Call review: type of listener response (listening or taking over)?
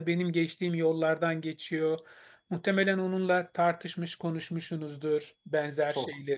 listening